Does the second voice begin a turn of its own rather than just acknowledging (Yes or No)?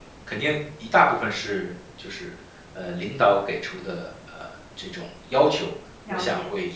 No